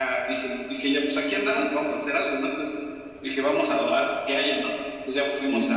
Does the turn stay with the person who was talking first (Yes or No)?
Yes